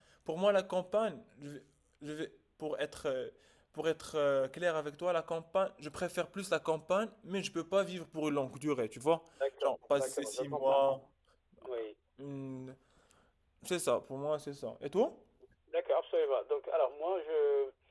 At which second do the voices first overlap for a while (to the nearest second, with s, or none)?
10 s